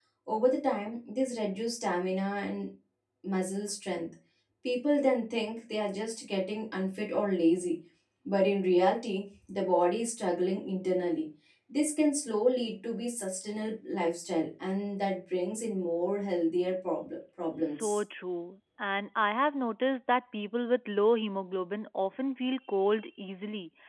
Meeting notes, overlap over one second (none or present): none